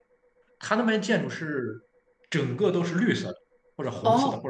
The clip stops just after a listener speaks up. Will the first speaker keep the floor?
No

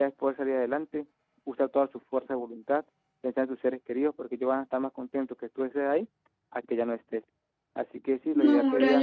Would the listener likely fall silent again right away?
No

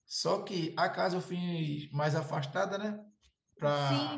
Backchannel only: No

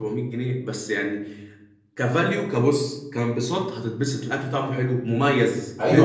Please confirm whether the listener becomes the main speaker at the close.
Yes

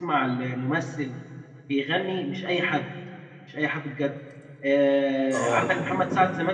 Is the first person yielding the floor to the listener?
No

